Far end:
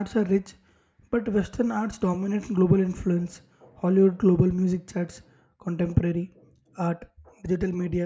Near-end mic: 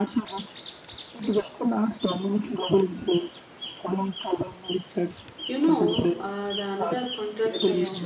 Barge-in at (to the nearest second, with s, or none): 5 s